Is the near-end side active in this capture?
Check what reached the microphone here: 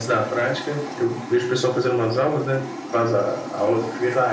No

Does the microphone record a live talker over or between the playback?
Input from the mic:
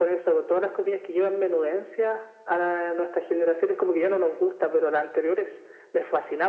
No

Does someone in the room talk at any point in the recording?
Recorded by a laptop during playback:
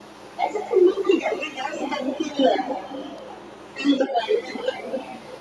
No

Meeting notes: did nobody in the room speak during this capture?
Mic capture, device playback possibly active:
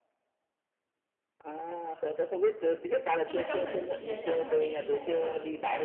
No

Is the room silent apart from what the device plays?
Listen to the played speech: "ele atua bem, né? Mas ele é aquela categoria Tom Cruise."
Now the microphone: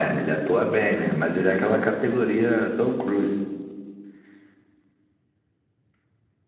Yes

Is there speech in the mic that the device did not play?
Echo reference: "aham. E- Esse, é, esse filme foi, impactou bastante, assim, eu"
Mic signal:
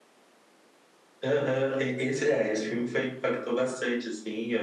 No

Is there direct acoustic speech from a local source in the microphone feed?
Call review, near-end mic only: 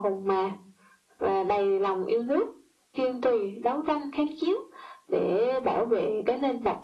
No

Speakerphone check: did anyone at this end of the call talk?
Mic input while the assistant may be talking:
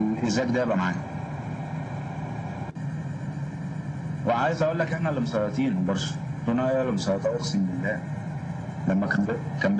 No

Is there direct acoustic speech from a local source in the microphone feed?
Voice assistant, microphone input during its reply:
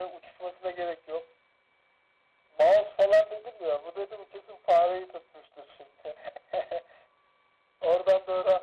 No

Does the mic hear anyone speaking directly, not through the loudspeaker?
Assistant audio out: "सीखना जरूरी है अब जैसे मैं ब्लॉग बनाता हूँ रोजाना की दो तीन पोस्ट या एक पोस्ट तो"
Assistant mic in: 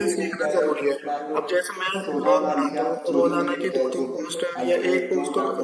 Yes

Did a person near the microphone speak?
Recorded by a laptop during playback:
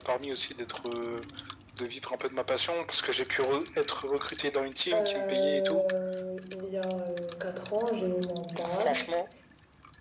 Yes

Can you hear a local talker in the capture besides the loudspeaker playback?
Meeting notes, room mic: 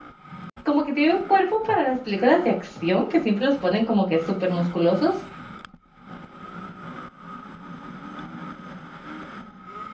Yes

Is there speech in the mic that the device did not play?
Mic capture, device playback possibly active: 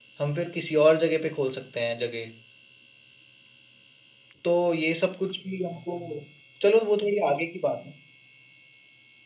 Yes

